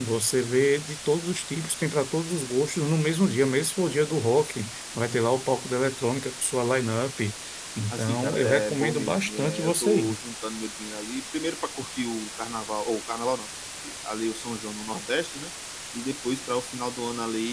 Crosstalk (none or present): present